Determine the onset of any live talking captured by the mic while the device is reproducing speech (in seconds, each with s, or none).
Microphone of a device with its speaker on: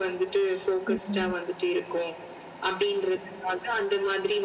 0.9 s